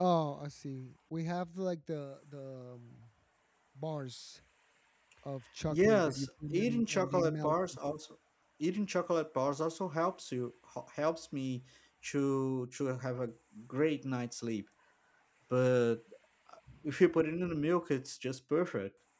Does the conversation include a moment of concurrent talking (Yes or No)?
Yes